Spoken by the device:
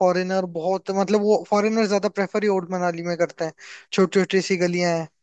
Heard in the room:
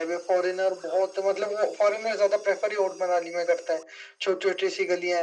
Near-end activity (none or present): none